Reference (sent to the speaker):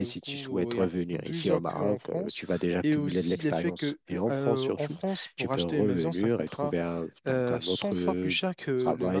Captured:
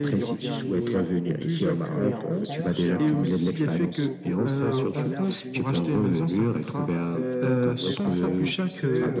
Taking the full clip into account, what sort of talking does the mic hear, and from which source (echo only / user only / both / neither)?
both